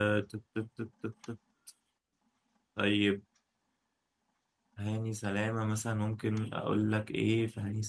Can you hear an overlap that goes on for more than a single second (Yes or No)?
No